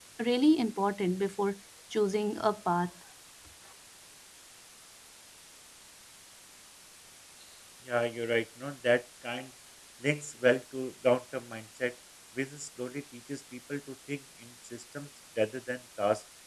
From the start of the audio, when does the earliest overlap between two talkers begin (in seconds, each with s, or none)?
none